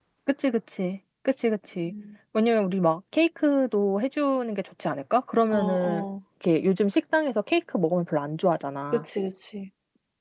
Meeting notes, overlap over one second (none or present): none